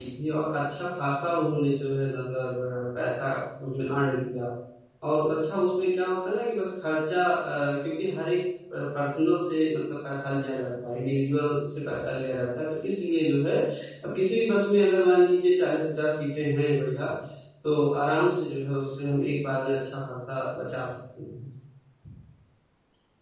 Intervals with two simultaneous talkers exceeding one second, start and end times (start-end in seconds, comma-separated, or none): none